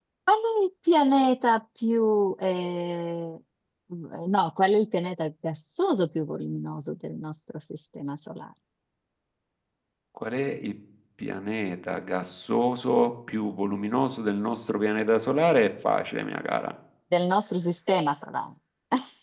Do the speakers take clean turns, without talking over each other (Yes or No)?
Yes